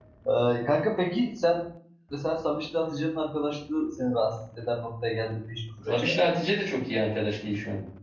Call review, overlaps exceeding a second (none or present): none